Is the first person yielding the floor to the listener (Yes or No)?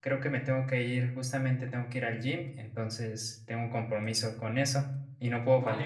Yes